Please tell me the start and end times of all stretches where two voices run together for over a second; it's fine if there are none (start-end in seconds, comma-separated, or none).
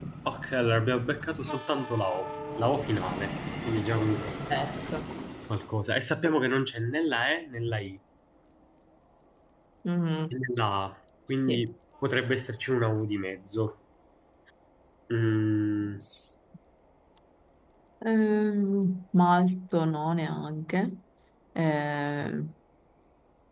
none